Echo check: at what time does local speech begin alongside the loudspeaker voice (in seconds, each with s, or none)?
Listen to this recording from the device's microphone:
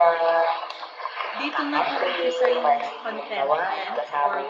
1.4 s